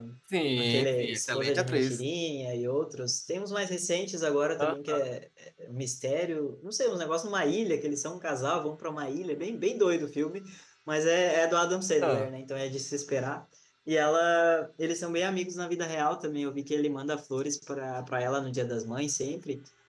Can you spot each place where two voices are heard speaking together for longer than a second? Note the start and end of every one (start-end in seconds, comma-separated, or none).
0.6-2.0